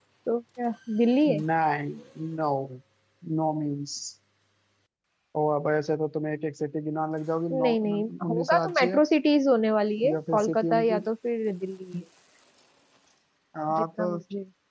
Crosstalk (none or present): present